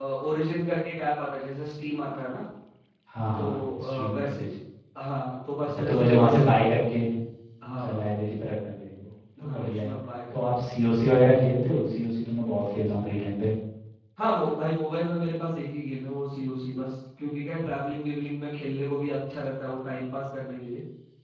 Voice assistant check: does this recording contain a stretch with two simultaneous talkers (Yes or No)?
Yes